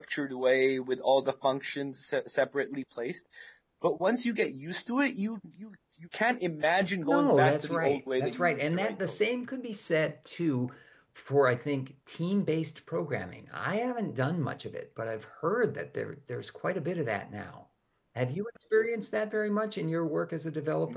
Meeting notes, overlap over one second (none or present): present